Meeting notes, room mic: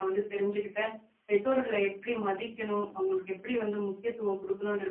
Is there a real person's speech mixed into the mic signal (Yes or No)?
Yes